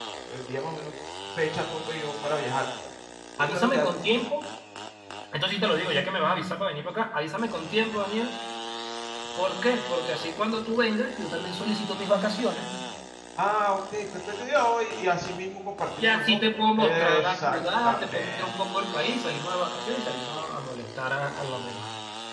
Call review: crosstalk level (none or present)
present